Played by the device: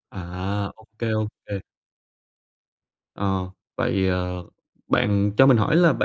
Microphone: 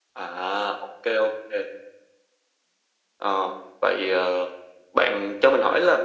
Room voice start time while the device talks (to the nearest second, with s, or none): none